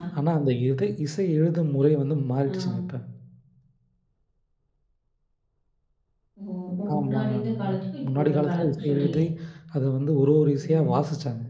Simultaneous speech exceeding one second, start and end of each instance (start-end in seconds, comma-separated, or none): 6.9-9.2